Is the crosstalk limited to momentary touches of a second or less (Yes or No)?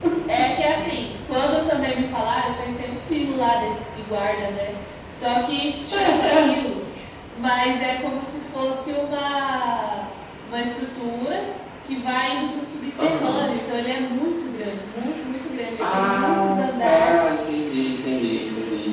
No